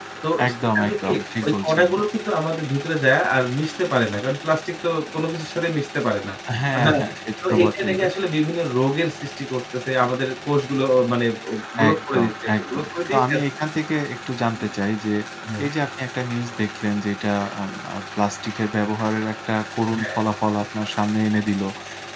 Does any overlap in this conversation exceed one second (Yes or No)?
Yes